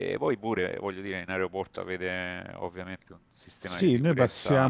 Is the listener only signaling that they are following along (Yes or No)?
No